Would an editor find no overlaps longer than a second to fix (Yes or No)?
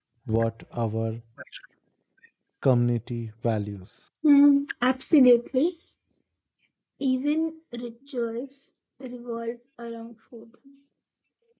Yes